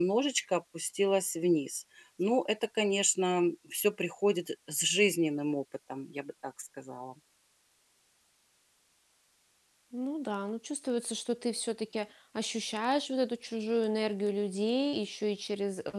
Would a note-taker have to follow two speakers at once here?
No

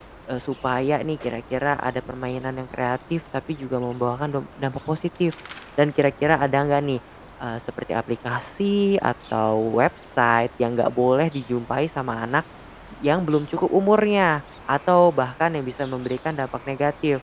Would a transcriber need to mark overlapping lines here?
No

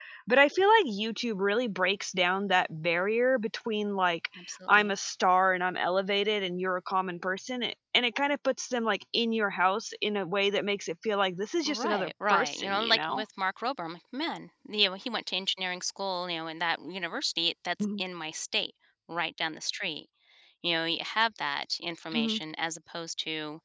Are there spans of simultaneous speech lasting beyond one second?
Yes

